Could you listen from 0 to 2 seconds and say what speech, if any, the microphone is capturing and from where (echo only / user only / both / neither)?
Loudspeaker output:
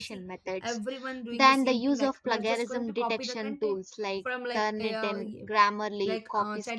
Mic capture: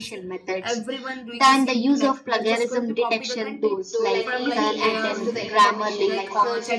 echo only